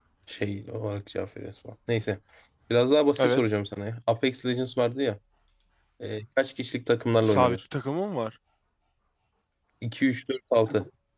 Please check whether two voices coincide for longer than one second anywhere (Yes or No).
No